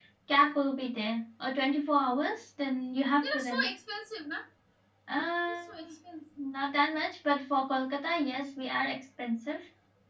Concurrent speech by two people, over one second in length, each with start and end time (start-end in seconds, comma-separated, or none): none